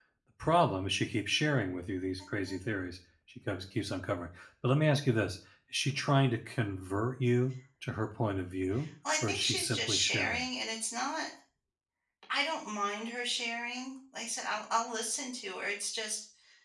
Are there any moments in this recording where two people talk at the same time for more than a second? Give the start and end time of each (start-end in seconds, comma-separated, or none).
9.2-10.4